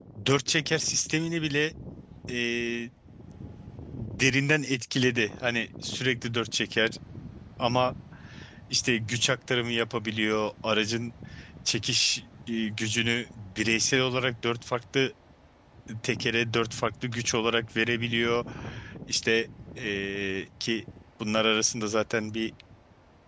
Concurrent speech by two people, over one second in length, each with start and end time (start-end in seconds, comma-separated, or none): none